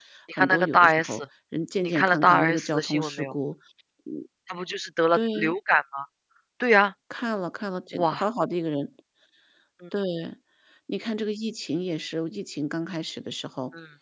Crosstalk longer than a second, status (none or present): present